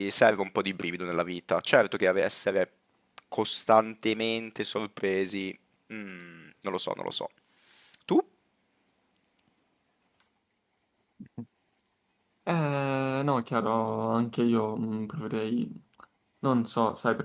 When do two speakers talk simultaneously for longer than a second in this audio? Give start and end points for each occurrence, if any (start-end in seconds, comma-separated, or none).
none